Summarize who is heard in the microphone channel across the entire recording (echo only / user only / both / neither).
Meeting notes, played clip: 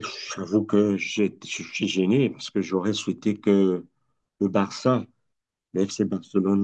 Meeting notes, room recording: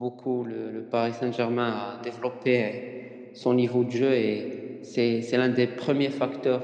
user only